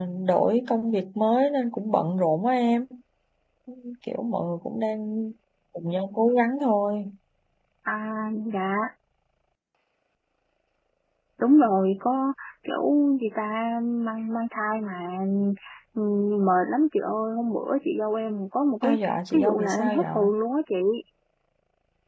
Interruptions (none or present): present